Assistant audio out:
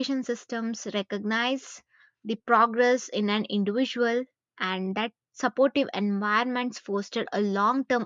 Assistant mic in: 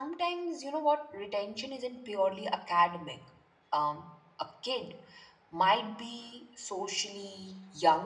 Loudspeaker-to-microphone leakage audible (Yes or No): No